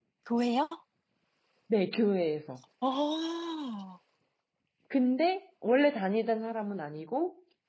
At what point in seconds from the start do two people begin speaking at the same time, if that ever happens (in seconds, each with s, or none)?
none